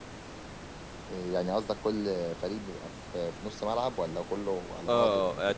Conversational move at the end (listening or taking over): taking over